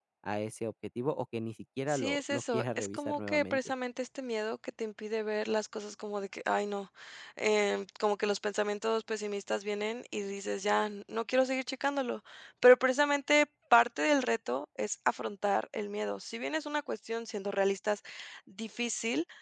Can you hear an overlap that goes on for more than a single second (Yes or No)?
Yes